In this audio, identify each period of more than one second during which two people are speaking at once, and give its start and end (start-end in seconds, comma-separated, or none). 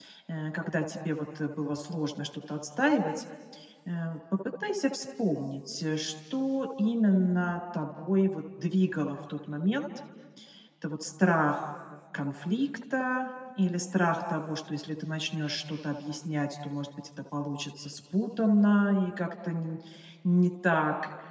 none